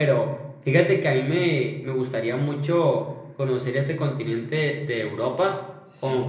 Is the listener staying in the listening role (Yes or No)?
Yes